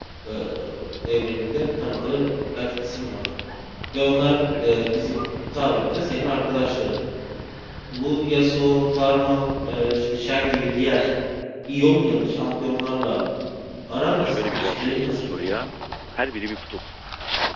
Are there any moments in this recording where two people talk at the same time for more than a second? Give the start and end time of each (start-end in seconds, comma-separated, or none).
14.0-15.6